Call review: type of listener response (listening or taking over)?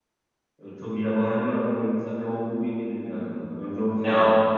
taking over